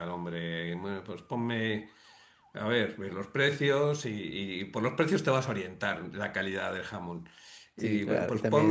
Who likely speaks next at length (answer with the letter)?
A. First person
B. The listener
B